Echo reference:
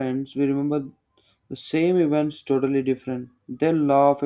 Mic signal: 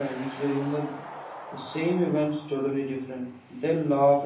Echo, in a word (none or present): present